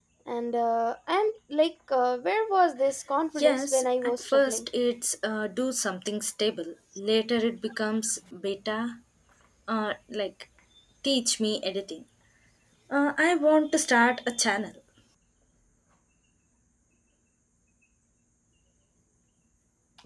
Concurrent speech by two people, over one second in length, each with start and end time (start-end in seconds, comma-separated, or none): 3.4-4.6